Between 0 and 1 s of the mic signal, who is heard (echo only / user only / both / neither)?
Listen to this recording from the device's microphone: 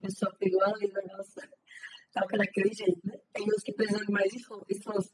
echo only